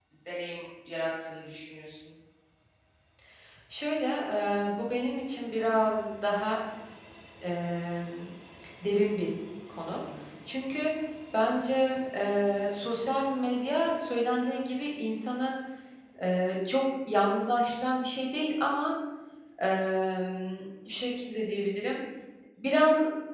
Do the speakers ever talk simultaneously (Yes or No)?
No